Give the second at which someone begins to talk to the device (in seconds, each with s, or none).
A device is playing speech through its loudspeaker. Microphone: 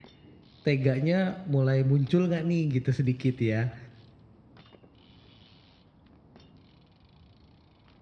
0.7 s